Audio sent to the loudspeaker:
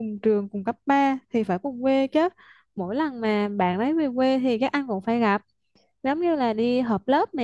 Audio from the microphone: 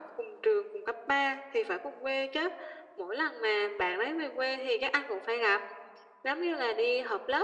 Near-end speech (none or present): none